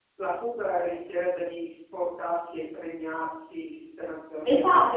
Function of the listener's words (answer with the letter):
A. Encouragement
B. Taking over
B